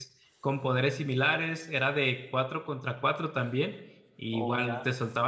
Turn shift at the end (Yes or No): No